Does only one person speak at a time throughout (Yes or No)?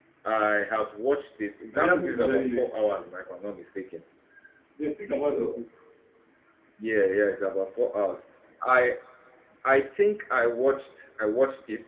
No